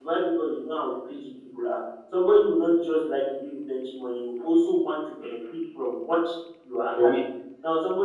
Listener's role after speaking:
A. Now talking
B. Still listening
B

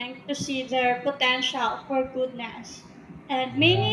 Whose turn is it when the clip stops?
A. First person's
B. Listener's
A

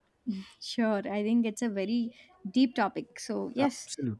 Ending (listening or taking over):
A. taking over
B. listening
B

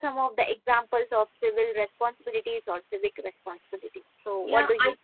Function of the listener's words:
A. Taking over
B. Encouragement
A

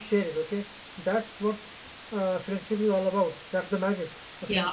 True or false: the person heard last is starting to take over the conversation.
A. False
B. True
B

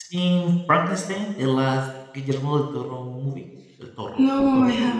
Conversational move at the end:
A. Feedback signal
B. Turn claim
B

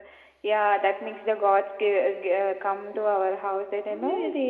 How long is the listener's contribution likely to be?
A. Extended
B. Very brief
A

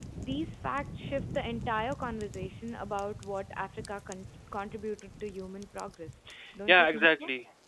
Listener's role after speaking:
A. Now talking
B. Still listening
A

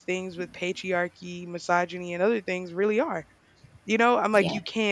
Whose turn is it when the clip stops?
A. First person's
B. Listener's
A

